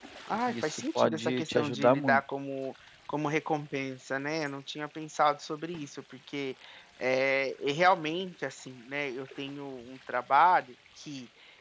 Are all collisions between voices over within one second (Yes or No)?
No